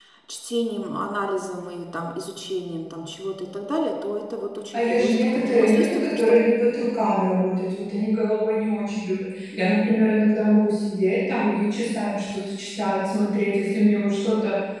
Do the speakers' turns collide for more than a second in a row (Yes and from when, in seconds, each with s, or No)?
Yes, from 4.7 s